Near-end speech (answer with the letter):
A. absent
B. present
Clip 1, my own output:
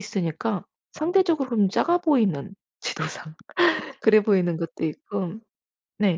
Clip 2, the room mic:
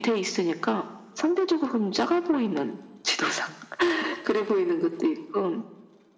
A